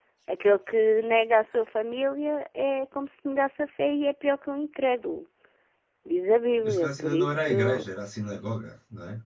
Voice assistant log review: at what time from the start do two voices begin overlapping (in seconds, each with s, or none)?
6.6 s